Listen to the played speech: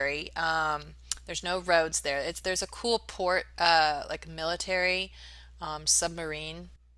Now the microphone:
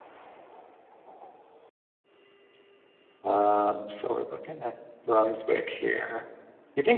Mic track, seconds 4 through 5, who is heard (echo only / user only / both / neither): user only